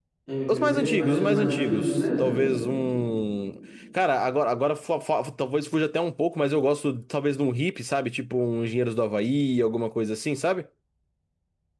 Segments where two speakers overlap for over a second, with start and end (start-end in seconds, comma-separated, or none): 0.5-2.3